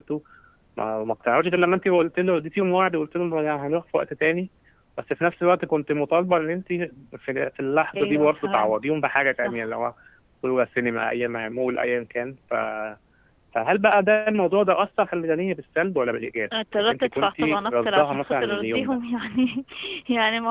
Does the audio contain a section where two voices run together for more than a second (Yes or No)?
Yes